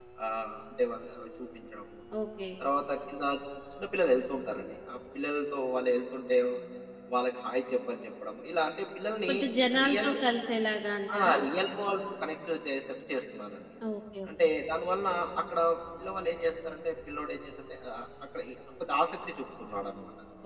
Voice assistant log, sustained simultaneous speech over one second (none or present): none